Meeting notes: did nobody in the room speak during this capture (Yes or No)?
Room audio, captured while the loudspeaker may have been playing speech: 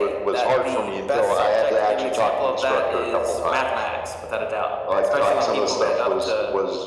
Yes